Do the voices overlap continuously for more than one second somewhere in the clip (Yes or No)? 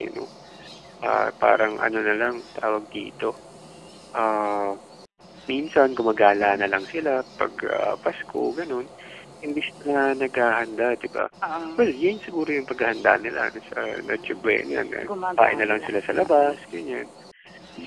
Yes